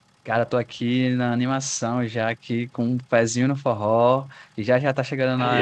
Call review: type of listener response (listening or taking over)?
listening